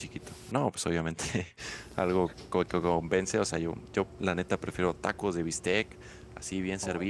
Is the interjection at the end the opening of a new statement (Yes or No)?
No